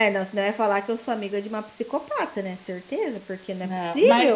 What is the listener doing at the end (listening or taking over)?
taking over